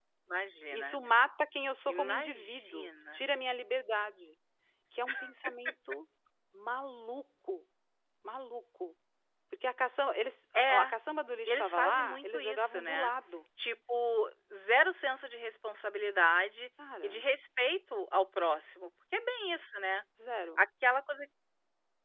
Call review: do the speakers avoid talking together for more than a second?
No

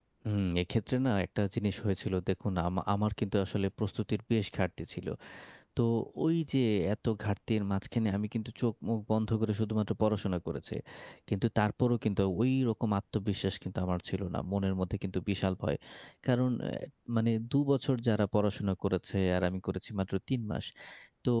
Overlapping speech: No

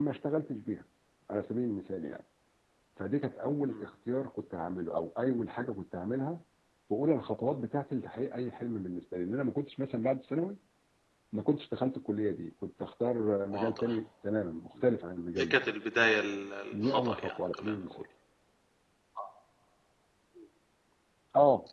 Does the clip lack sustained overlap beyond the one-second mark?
No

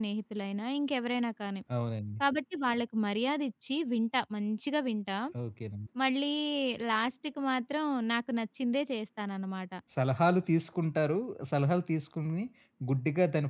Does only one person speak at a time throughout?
Yes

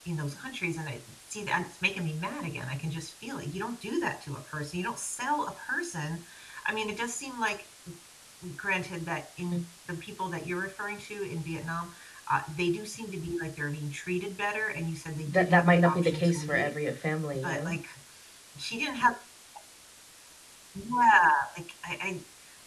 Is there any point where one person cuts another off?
Yes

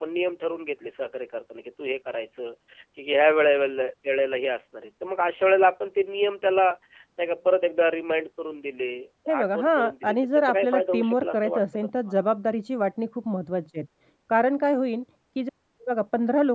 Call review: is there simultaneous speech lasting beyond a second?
Yes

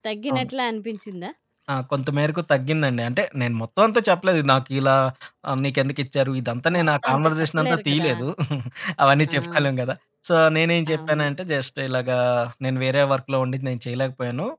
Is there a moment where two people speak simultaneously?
Yes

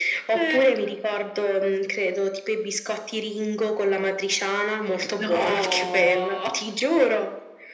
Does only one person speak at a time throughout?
No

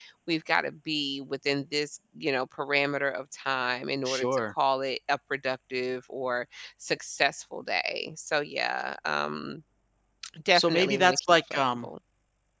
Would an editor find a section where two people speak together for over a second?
Yes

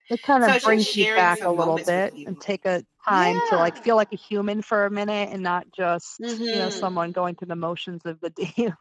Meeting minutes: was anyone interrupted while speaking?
Yes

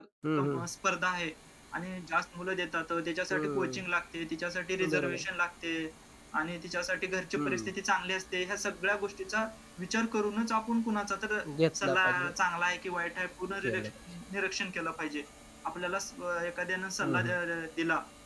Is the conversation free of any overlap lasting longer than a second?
Yes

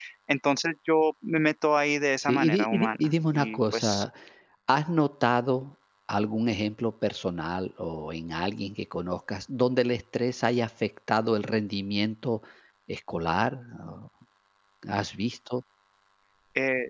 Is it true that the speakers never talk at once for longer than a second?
No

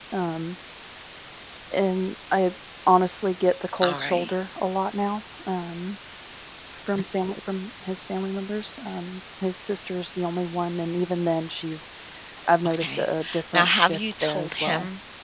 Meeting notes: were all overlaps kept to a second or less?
No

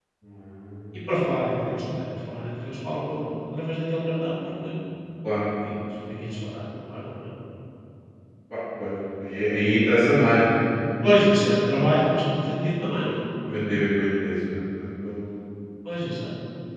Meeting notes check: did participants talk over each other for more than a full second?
No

